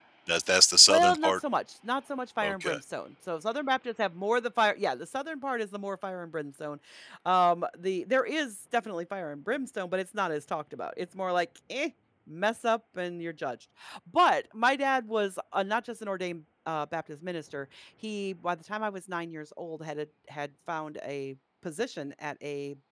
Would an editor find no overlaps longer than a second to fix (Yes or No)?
Yes